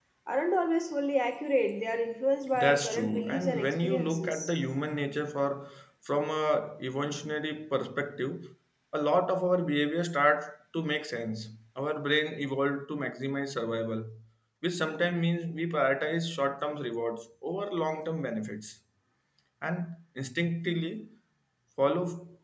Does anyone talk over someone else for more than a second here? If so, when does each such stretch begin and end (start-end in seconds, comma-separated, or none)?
2.5-4.5